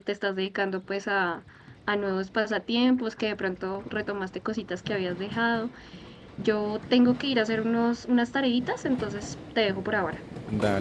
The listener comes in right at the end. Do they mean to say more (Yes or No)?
Yes